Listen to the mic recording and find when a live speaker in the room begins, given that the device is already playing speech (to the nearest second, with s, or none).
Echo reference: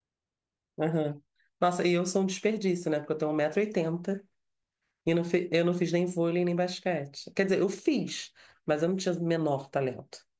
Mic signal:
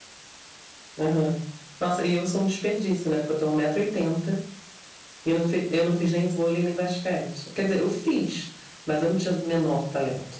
none